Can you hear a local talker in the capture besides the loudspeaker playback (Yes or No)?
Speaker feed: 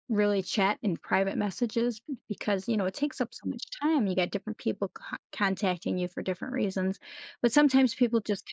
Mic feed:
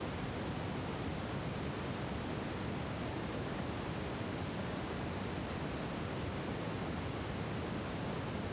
No